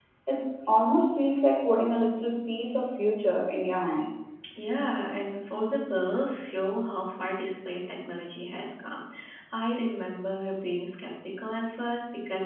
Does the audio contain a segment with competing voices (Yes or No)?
No